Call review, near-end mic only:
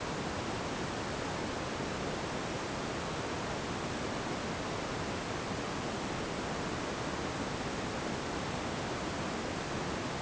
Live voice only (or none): none